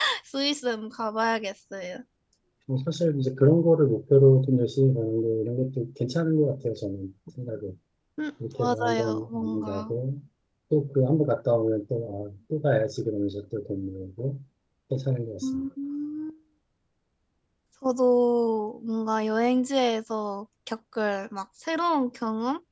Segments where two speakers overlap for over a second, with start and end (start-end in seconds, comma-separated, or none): 8.6-9.9